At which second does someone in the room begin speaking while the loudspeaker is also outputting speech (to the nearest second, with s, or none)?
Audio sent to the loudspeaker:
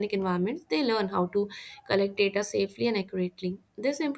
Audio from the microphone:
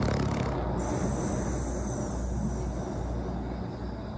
none